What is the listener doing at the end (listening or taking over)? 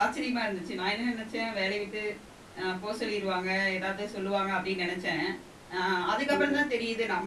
listening